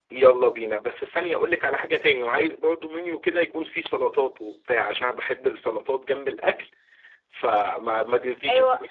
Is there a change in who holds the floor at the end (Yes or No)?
Yes